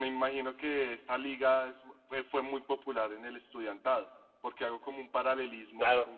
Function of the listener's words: listening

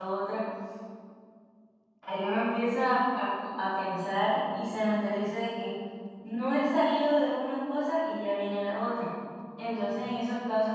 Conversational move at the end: listening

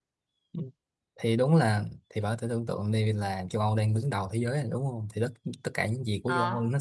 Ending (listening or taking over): listening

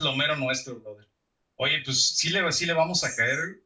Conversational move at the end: listening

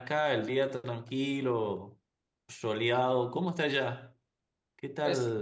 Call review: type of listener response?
taking over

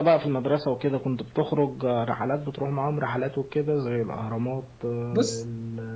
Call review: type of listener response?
listening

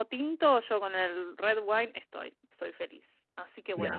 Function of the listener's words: taking over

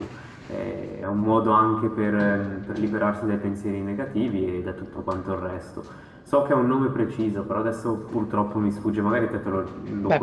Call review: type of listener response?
taking over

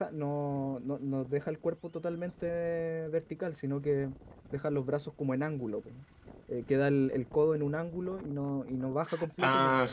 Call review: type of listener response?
listening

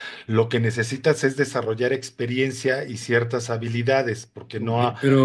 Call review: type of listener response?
taking over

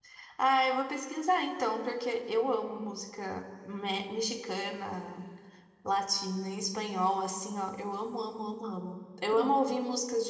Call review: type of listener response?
listening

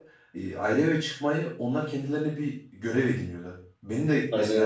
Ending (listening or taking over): listening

